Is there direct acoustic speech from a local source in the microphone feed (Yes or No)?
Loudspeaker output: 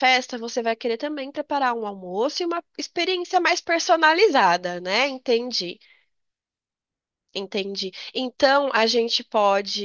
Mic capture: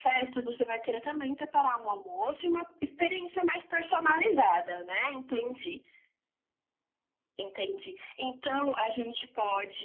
No